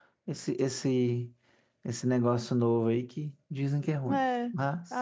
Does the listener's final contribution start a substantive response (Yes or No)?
Yes